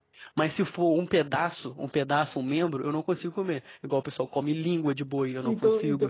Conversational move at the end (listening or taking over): taking over